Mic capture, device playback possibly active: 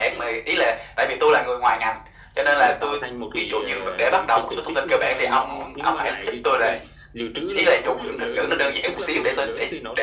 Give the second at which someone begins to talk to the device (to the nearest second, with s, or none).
3 s